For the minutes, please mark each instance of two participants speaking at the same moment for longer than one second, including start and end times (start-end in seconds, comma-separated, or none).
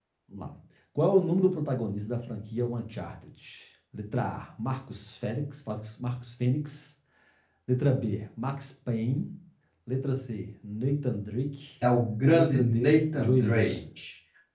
12.3-13.8